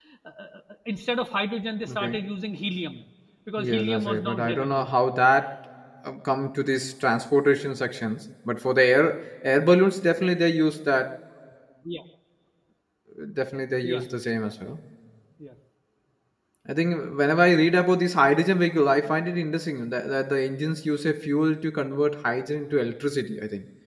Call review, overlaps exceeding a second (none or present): present